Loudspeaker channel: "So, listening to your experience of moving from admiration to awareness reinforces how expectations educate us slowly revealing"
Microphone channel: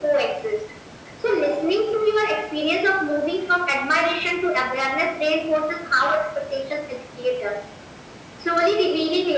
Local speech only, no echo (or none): none